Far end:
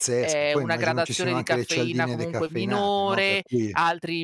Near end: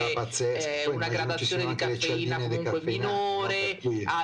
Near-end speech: none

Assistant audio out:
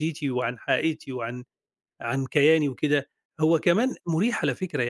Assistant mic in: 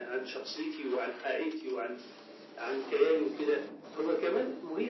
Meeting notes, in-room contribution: none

